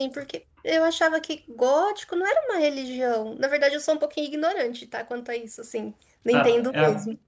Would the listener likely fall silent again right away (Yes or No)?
No